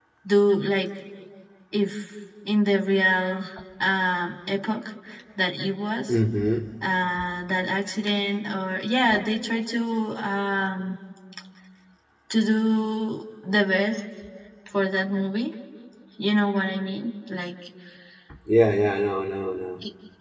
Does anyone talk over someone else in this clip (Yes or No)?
No